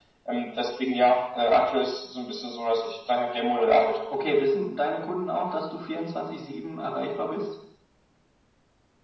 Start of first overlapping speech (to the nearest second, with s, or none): none